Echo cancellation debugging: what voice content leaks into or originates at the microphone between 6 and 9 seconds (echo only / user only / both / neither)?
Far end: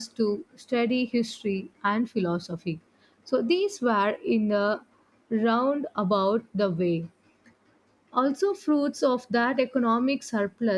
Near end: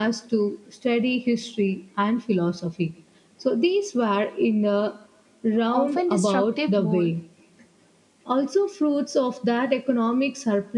both